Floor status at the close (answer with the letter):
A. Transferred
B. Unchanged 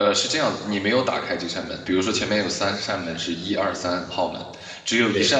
B